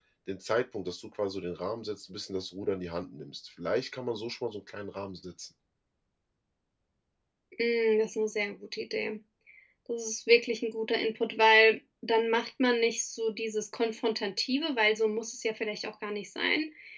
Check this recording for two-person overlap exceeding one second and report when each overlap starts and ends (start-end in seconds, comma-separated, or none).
none